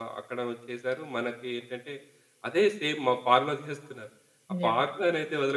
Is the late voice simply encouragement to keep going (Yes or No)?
Yes